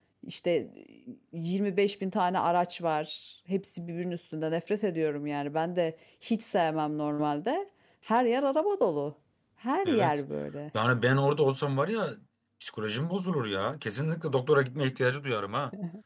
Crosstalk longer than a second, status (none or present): none